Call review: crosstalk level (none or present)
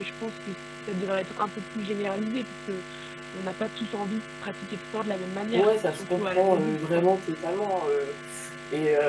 present